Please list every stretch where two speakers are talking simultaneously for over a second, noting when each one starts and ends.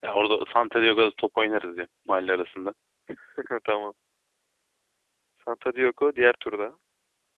none

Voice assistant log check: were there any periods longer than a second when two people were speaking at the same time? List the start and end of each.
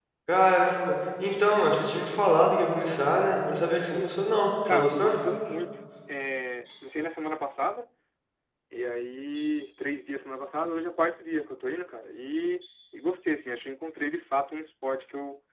none

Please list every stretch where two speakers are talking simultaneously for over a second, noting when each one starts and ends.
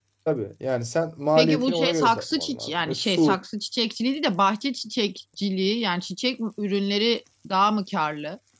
1.4-3.4

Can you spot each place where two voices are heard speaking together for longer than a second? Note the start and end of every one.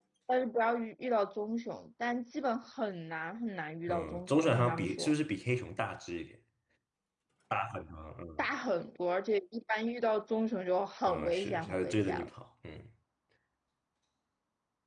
3.9-5.1, 11.1-12.3

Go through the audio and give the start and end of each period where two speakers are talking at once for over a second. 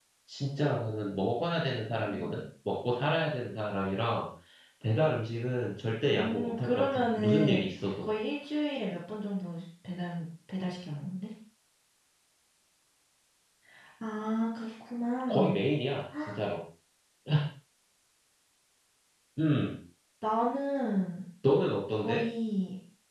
6.1-8.1

